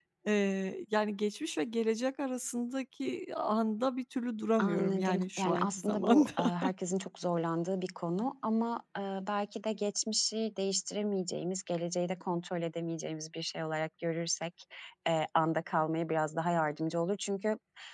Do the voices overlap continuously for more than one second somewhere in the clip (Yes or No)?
Yes